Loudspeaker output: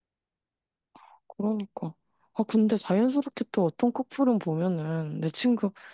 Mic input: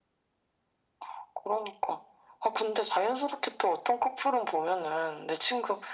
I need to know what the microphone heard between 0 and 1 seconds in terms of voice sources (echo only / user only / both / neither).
neither